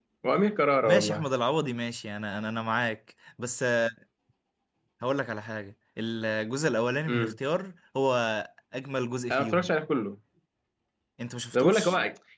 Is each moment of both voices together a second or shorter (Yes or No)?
Yes